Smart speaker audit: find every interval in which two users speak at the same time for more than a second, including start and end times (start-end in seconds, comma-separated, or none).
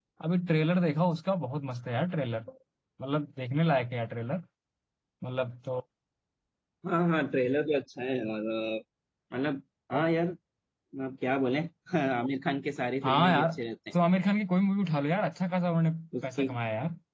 none